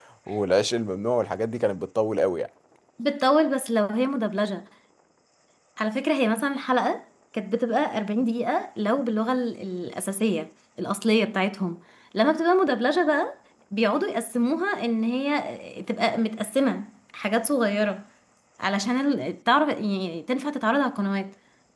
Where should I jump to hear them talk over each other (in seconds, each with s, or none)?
none